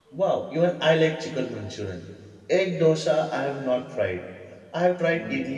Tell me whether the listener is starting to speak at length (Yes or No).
No